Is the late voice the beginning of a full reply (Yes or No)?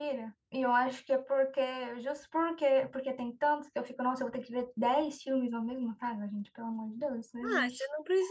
Yes